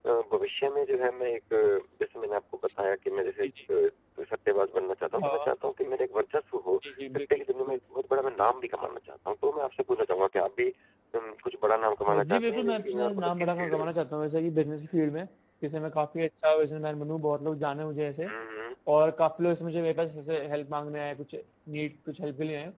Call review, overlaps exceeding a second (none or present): present